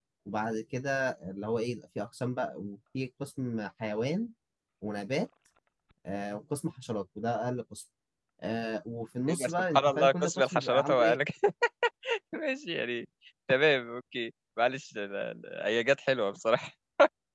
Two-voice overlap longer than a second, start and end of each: 9.3-11.2

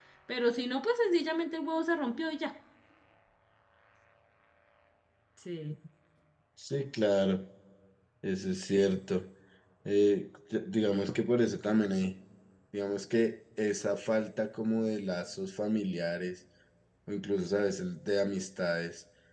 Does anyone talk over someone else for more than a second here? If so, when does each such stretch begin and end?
none

